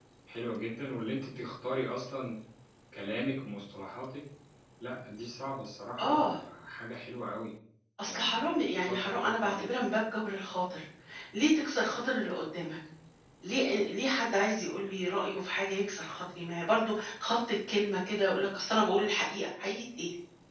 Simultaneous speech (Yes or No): Yes